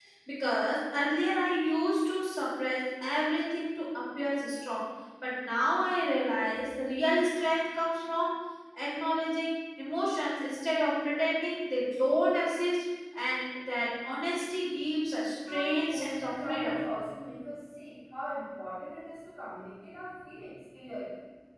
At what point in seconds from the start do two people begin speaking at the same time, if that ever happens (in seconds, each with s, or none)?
15.5 s